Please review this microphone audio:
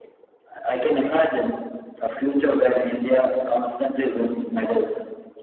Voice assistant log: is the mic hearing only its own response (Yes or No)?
Yes